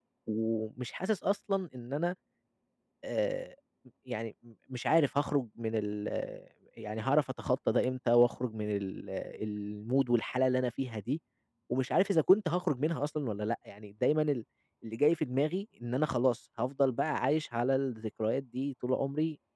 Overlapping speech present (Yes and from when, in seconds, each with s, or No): No